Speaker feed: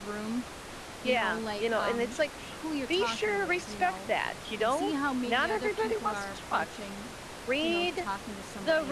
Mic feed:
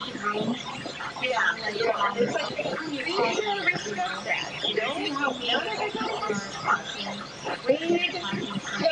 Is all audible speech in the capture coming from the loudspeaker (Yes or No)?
Yes